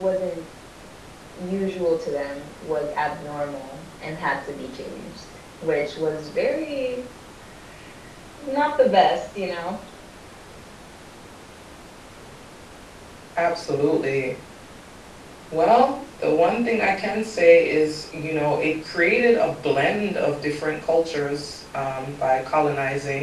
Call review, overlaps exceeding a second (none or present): none